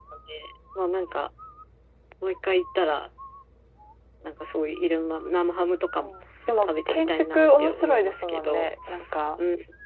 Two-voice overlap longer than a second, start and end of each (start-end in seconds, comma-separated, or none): 6.6-8.7